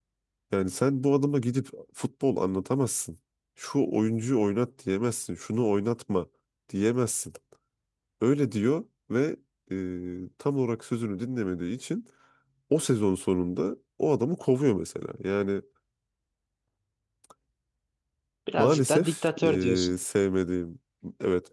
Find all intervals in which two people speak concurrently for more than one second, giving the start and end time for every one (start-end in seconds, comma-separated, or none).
18.6-19.9